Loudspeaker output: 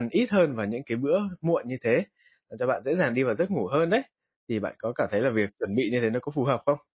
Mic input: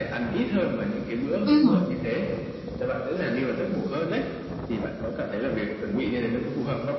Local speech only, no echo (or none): ừm.